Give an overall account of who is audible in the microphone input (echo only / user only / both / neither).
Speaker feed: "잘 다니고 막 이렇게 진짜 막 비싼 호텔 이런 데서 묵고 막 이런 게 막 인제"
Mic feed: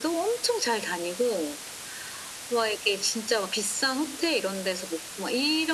echo only